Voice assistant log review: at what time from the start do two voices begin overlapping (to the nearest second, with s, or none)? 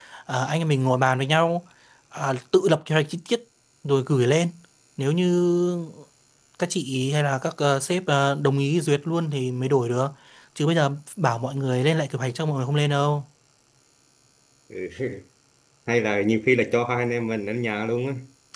none